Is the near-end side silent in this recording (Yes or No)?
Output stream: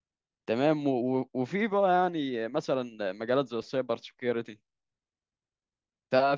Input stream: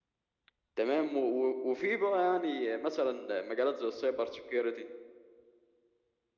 Yes